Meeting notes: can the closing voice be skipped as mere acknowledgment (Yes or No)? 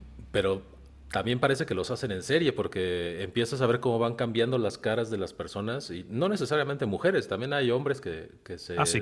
Yes